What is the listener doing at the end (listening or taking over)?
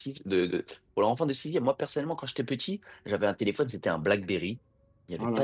listening